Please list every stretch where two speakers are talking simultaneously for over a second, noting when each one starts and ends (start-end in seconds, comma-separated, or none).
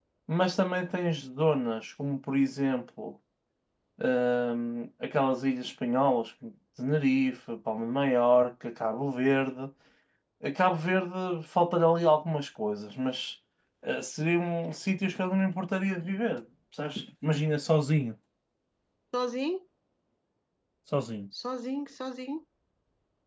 none